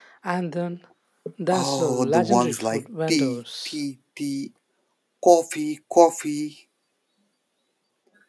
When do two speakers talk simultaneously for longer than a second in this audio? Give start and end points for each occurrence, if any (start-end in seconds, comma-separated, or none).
1.5-3.8